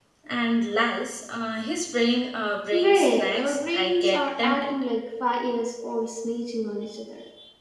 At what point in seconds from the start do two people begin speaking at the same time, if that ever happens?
2.7 s

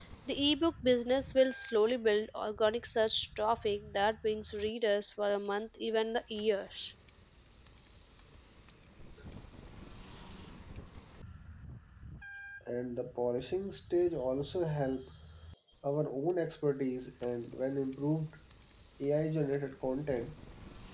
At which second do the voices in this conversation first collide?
none

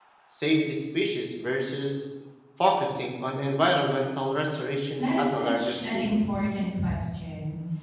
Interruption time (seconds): 5.0 s

